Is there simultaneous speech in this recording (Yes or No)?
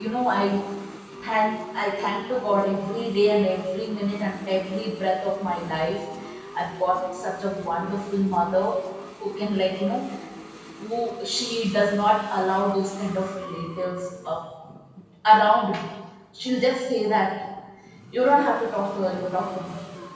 No